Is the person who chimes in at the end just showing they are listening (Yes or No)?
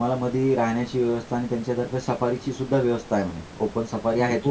No